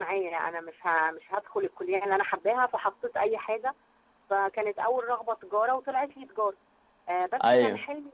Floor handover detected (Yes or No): No